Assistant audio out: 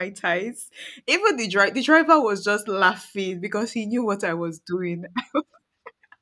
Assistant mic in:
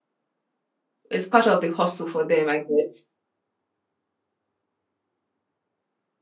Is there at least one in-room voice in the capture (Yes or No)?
Yes